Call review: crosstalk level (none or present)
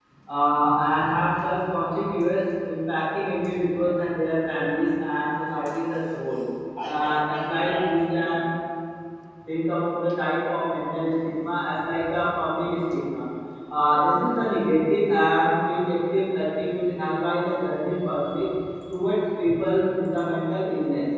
present